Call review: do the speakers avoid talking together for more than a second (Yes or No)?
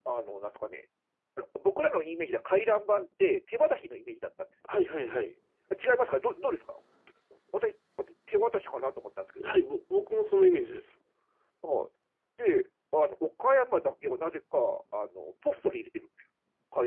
Yes